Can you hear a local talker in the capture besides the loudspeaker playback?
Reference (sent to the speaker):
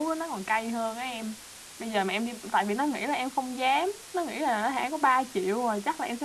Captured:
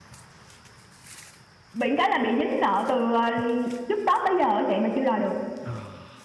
Yes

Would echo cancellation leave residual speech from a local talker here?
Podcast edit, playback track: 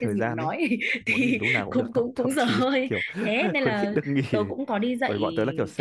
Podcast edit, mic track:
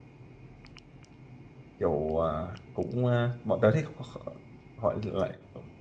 Yes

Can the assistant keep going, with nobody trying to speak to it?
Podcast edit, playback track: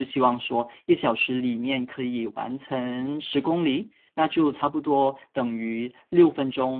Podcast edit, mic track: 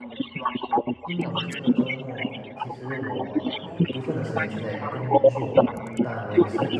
No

